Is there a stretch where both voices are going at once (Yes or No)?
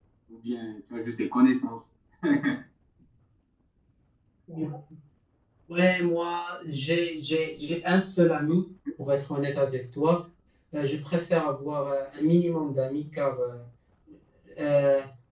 No